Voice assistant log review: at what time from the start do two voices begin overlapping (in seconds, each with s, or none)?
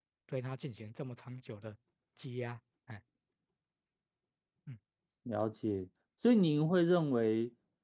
none